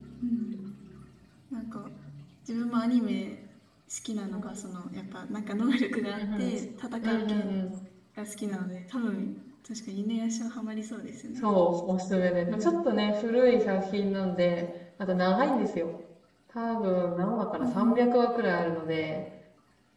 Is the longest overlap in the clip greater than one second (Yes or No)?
No